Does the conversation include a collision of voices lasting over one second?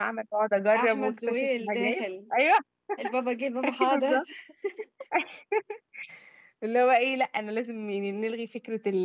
Yes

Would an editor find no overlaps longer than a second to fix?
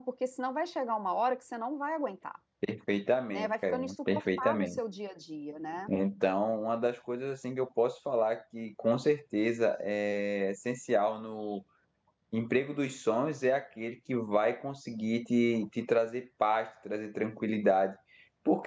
No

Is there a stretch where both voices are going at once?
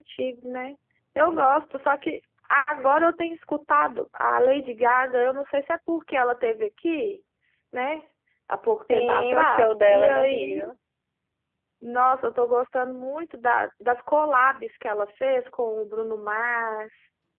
Yes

